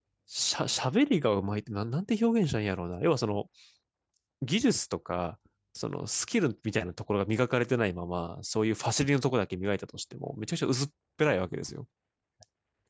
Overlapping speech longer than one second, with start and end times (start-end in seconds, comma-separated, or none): none